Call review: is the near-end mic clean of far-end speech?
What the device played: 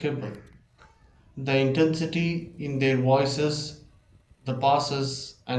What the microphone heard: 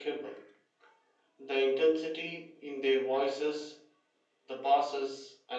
No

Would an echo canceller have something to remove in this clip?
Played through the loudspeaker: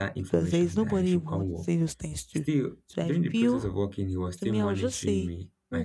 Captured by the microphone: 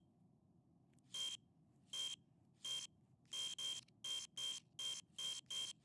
No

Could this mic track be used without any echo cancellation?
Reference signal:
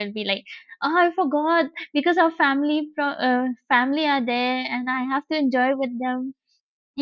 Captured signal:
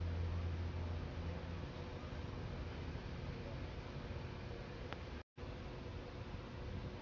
Yes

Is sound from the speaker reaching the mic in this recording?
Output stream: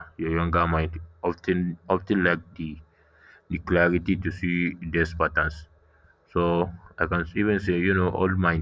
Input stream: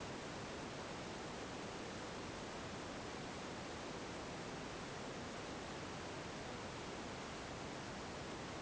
No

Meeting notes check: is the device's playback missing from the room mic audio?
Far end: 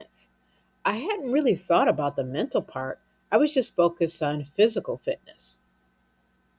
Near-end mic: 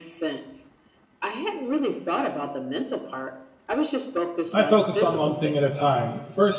No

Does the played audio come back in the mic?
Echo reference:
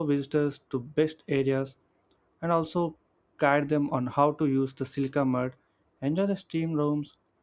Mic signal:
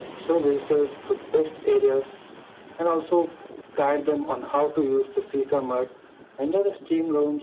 Yes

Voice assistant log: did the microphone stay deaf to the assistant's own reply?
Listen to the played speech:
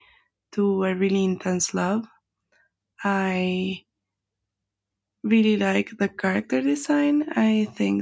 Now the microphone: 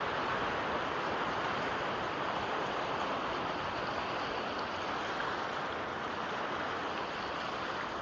Yes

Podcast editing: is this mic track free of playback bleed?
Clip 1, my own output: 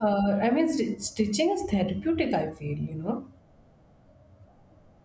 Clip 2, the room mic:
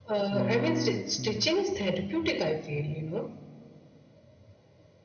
No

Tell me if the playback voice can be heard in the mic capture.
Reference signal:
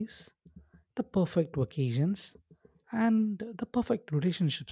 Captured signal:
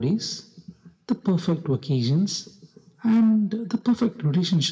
Yes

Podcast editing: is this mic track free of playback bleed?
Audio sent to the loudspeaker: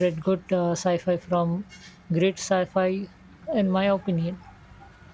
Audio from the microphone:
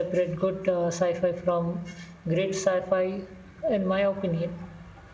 No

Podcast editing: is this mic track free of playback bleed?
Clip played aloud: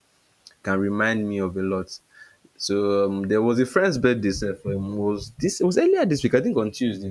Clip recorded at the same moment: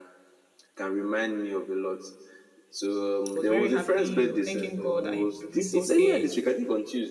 No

